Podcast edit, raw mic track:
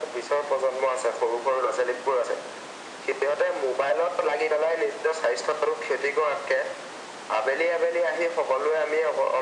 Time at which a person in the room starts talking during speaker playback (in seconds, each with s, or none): none